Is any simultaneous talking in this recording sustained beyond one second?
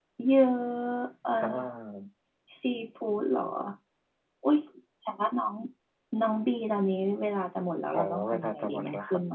Yes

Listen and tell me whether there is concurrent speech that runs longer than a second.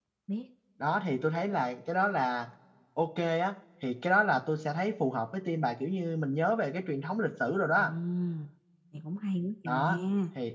No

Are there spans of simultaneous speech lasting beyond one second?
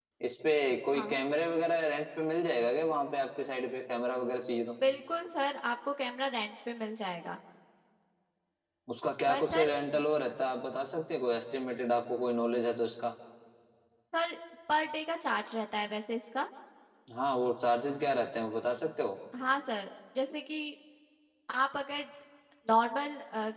No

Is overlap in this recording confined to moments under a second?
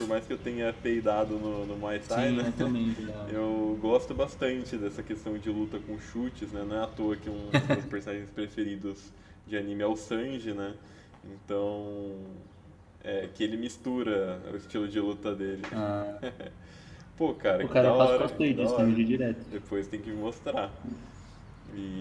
No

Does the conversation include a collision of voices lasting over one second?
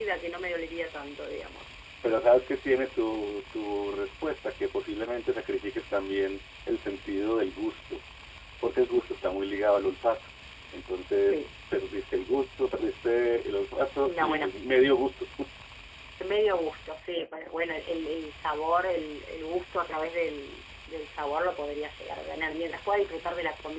No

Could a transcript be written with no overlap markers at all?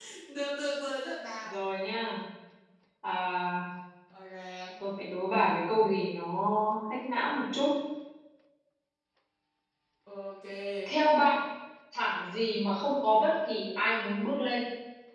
Yes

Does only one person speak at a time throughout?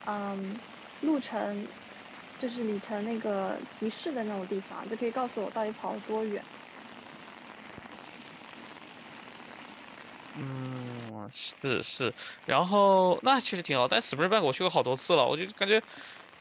Yes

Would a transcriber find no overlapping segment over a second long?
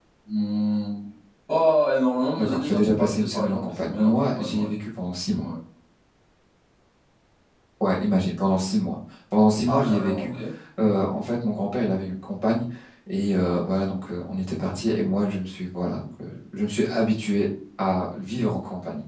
No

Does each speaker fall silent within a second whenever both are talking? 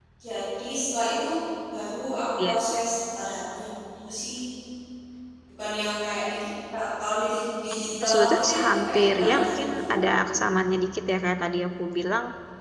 No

